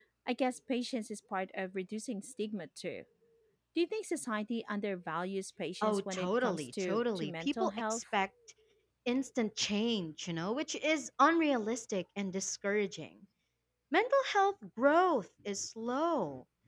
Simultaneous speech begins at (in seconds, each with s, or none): 5.8 s